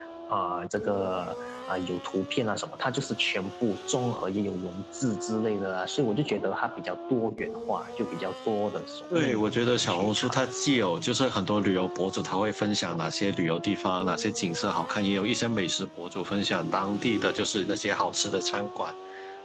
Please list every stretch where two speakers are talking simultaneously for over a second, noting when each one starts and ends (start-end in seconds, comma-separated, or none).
9.1-10.4